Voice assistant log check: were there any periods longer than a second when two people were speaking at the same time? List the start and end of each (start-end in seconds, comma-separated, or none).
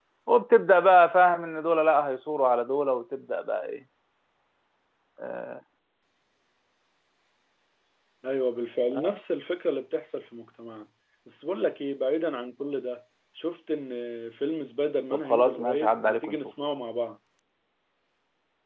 15.1-16.4